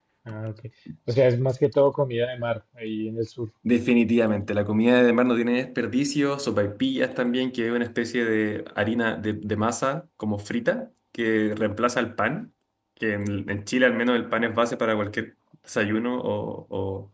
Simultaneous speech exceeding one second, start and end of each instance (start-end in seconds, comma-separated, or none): none